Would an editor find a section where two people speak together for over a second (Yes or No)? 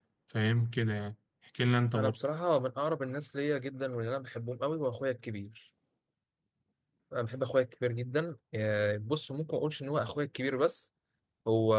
No